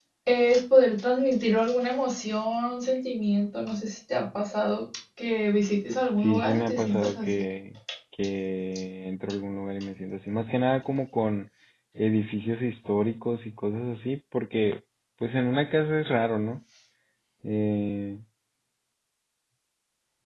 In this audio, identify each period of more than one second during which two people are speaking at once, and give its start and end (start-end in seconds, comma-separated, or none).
6.2-7.4